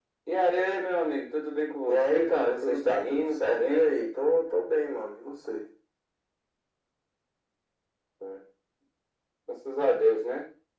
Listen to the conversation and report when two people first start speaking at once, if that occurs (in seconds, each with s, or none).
1.8 s